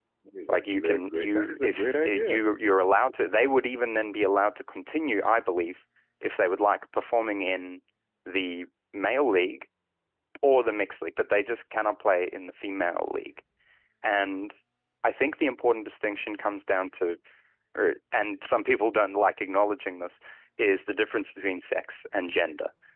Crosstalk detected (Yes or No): Yes